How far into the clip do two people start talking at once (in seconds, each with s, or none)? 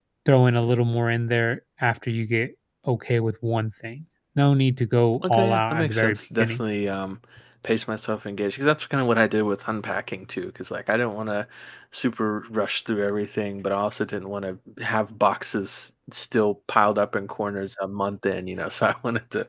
5.2 s